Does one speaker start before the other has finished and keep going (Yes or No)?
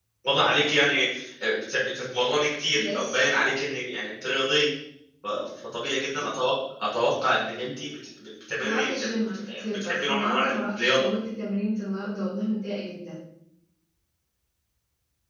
Yes